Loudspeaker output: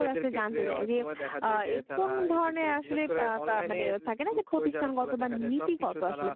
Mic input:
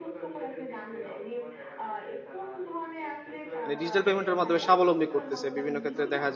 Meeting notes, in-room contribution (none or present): present